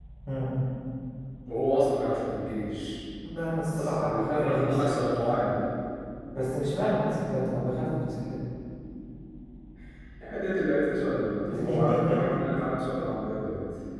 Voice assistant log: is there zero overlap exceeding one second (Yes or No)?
No